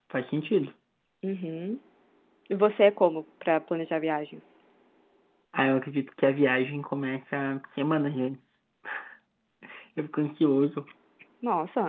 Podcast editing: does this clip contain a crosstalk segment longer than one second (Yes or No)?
No